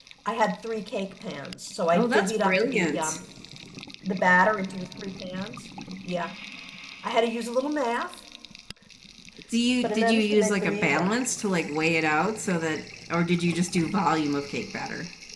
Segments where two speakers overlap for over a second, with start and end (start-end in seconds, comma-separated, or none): 1.9-3.2, 9.8-11.1